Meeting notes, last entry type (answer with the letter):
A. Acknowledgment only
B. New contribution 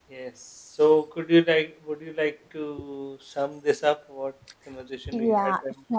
B